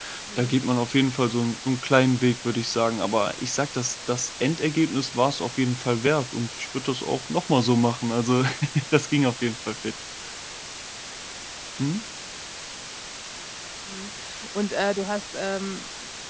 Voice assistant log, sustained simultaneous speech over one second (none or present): none